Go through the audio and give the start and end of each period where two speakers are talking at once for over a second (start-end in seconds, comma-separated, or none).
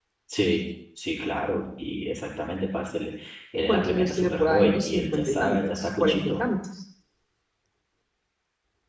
3.6-6.4